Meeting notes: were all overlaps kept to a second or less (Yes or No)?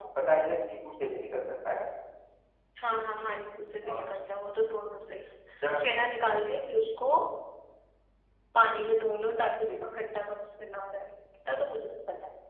Yes